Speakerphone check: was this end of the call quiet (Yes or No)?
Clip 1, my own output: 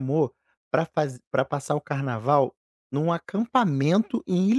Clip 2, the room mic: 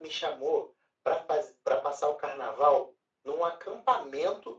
Yes